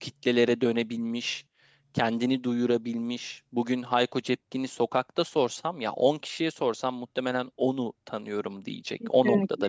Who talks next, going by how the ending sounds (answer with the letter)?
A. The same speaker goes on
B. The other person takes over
B